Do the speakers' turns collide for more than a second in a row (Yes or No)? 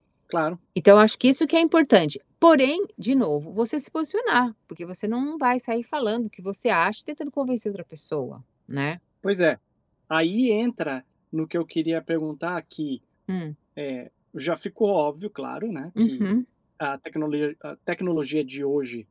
No